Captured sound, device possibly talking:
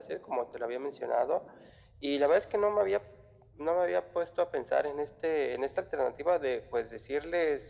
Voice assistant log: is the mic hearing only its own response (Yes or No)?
Yes